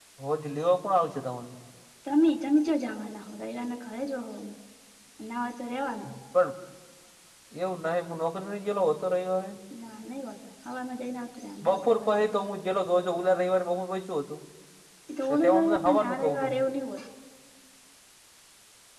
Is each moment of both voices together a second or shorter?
No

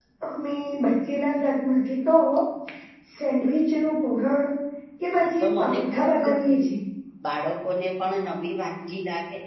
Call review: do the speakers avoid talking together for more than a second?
No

